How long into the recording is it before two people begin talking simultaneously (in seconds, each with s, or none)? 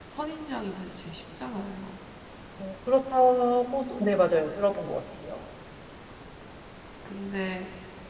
none